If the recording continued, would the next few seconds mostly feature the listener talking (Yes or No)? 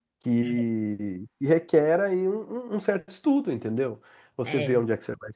No